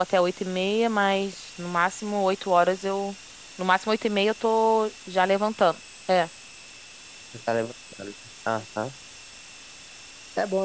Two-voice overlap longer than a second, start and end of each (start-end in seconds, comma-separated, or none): none